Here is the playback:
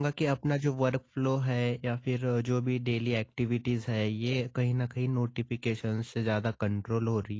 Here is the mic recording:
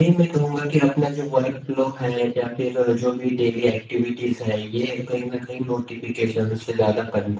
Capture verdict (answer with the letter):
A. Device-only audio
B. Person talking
A